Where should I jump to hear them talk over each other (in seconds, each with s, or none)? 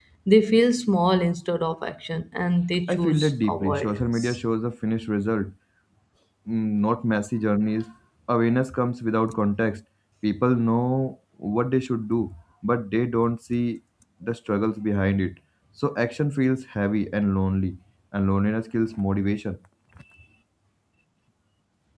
2.9 s